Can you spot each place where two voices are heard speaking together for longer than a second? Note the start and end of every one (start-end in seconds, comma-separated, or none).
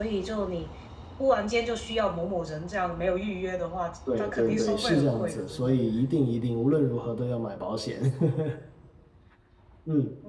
4.2-5.8